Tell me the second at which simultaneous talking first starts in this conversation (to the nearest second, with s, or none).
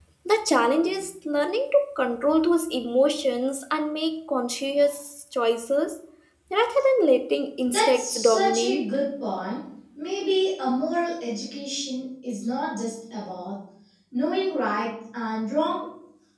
8 s